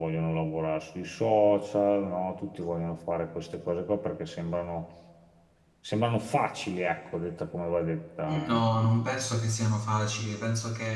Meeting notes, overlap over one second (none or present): none